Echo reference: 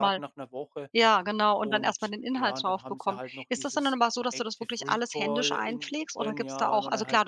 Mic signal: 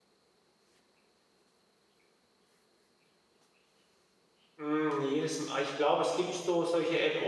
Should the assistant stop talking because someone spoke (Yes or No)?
Yes